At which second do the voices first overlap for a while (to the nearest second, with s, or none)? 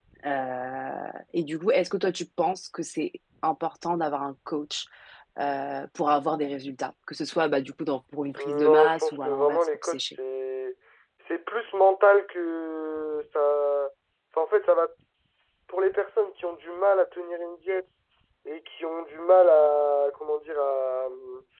8 s